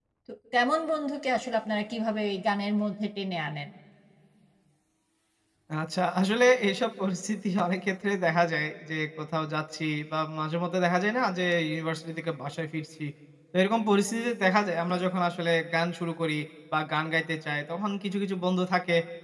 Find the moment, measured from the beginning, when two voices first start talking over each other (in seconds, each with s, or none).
none